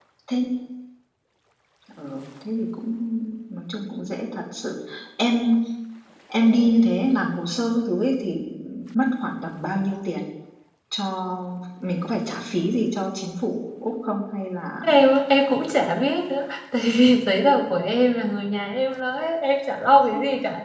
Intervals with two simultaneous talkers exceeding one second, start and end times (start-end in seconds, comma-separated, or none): none